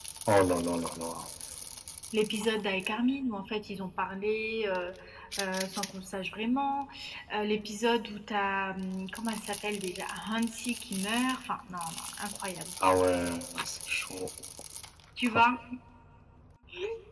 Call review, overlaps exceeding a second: none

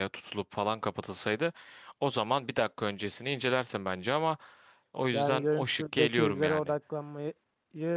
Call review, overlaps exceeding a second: present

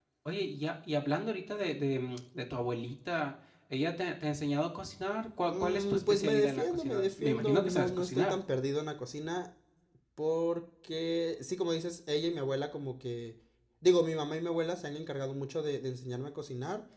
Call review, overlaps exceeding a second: present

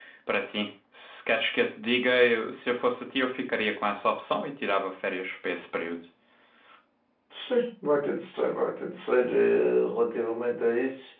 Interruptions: none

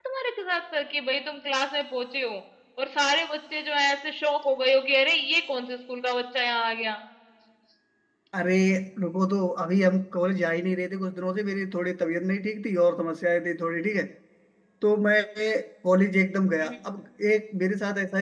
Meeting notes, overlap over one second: none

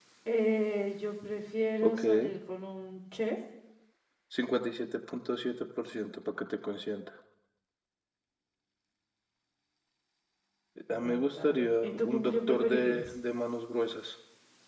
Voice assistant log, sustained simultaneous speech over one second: present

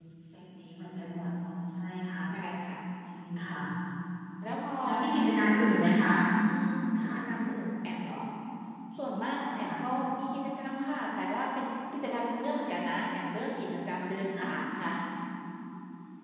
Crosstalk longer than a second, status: none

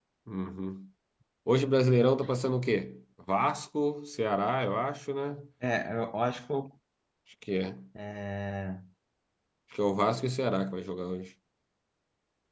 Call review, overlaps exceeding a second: none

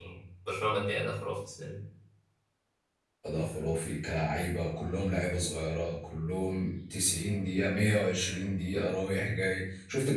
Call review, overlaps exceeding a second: none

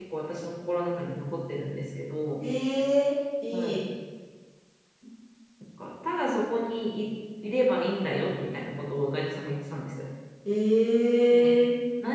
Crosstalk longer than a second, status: none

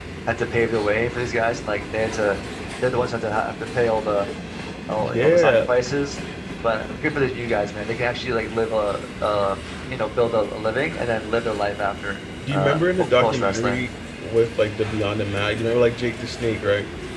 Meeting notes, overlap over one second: present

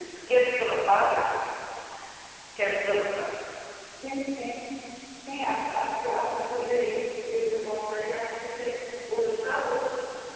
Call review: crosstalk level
none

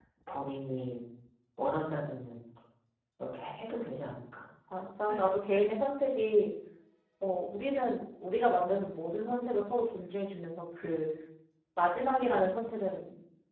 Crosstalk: none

